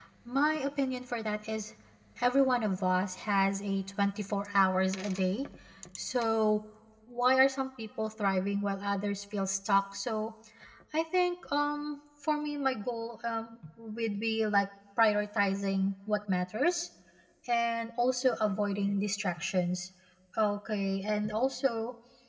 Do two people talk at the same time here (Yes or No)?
No